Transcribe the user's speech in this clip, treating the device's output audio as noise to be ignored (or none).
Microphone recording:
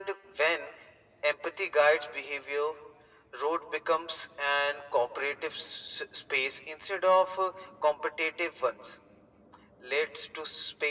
none